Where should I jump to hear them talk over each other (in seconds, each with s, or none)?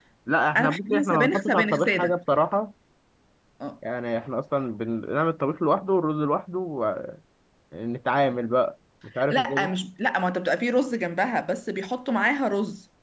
0.6 s